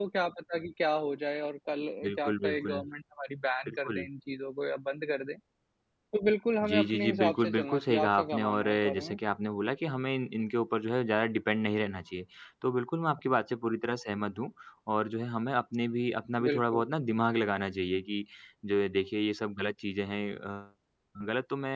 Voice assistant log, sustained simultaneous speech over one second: present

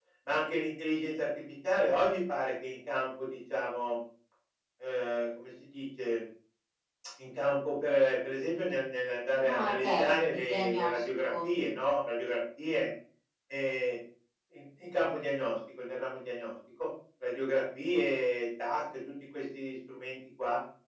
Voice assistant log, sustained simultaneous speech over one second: present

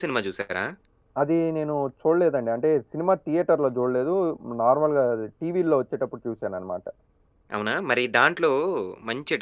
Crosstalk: none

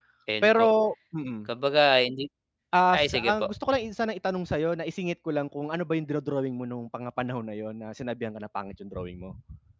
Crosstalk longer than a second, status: none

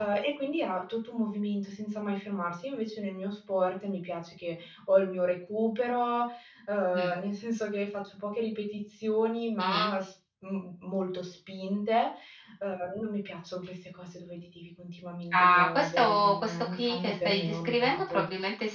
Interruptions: present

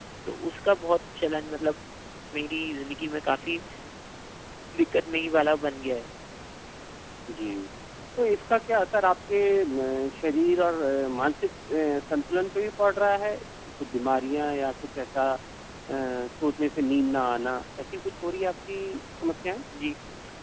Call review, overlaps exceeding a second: none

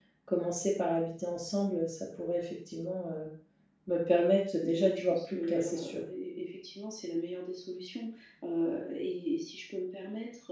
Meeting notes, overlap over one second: present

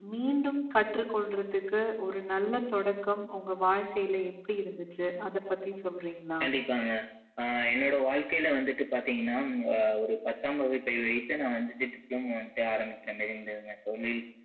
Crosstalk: none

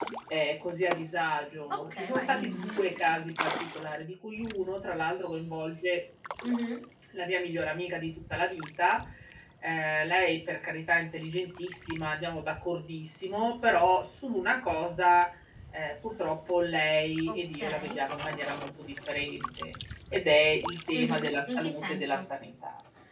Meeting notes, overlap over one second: present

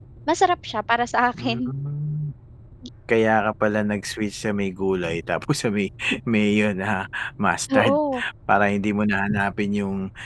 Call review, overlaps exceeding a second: none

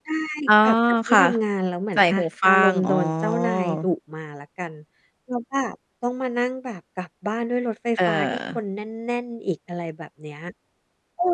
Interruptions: present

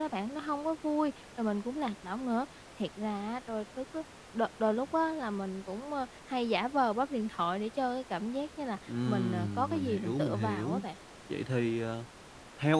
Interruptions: present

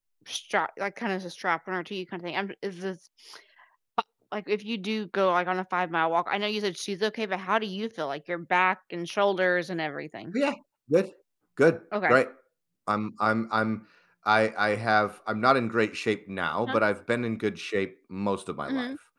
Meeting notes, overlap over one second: none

